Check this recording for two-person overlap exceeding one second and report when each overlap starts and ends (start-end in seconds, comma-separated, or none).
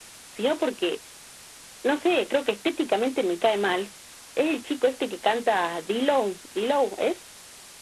none